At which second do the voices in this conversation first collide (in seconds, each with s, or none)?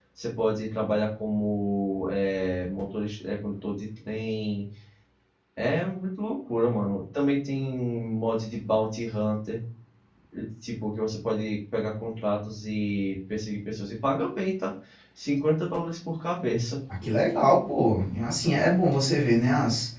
none